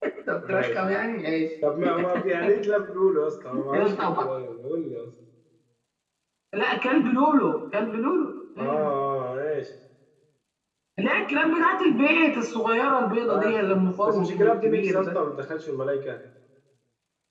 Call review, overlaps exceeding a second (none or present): present